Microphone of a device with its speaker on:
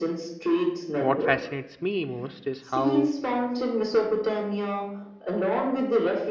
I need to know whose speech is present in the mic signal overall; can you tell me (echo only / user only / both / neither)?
both